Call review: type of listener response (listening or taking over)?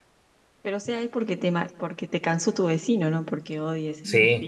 taking over